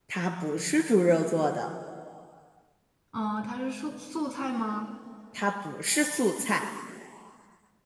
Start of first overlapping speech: none

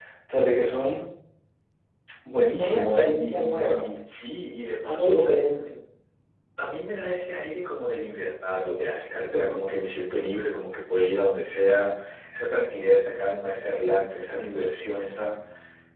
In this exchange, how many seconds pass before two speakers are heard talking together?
2.6 s

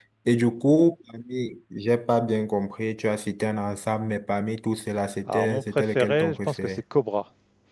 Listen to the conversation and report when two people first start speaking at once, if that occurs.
5.3 s

